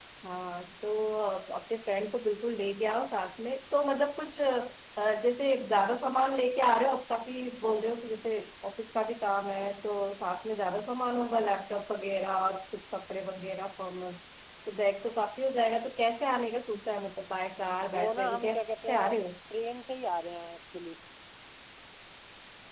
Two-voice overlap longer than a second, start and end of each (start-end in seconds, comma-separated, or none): 17.9-19.2